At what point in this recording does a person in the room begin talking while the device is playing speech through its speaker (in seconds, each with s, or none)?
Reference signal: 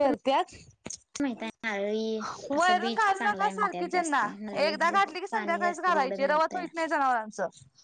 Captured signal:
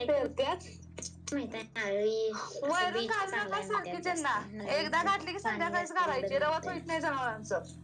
none